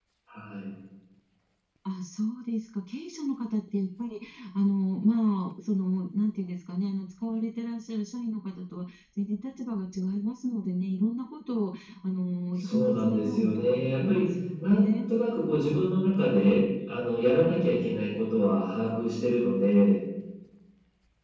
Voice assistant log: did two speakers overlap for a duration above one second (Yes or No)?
Yes